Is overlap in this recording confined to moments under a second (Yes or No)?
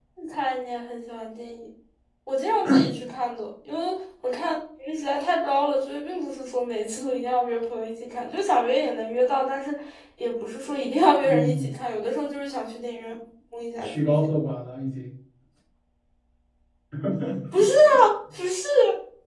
Yes